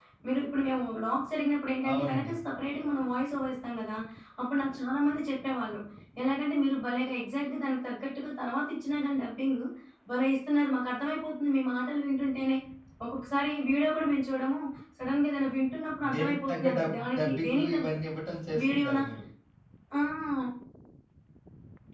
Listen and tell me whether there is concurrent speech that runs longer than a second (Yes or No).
Yes